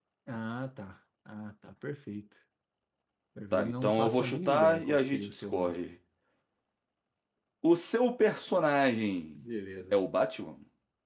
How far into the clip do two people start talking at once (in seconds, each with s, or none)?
3.5 s